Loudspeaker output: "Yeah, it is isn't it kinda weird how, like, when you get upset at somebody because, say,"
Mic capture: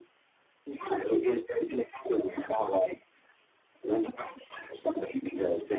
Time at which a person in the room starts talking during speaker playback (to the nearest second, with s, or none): none